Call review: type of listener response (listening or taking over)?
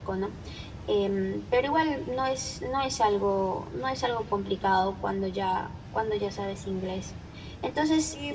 taking over